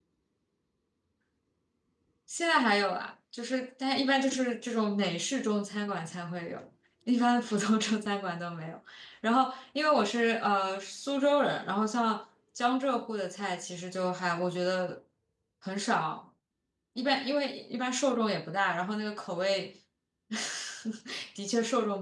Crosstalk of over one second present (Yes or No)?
No